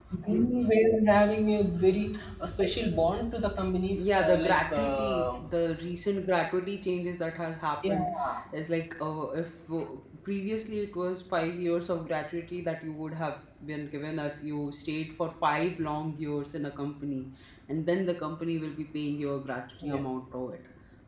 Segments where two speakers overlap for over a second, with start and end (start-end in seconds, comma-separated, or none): 3.9-5.3